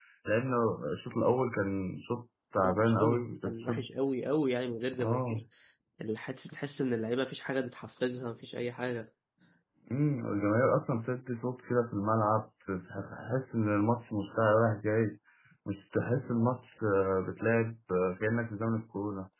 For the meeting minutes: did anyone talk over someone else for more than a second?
Yes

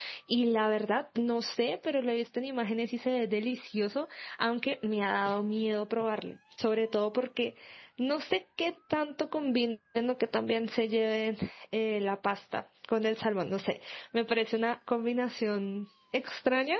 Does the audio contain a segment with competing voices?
No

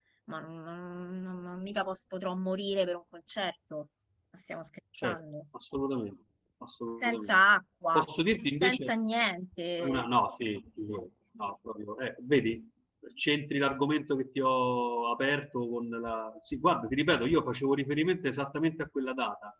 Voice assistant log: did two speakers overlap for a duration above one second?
No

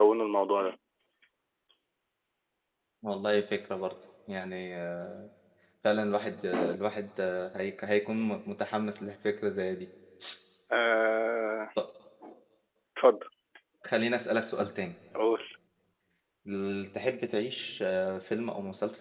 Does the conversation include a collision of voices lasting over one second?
No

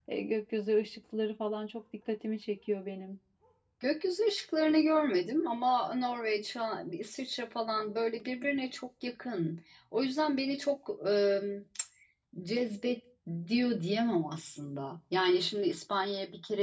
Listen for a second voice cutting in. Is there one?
No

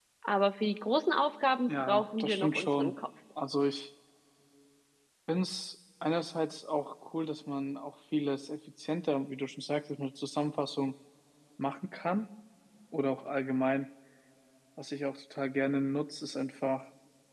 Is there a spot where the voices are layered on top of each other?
Yes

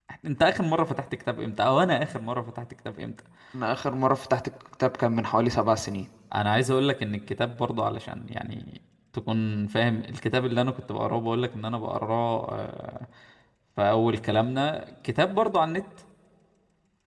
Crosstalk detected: No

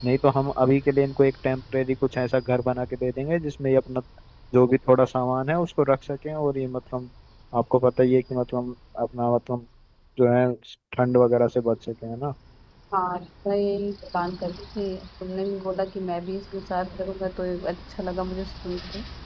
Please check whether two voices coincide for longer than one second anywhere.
No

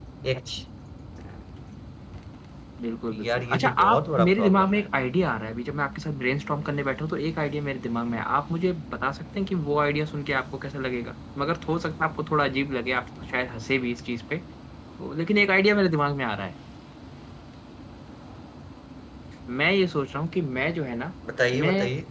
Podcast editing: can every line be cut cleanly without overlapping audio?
No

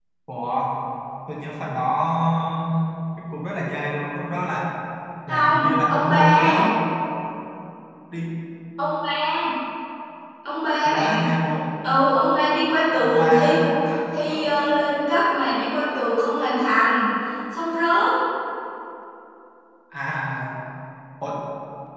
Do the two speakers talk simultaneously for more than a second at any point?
Yes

